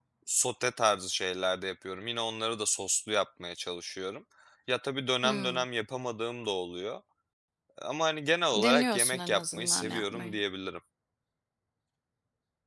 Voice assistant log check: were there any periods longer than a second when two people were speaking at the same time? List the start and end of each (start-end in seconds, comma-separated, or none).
8.5-10.4